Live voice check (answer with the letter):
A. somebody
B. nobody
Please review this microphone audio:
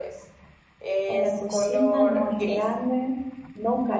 A